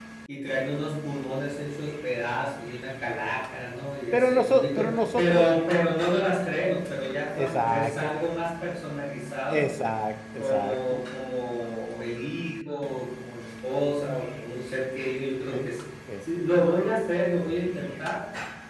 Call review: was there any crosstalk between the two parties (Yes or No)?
Yes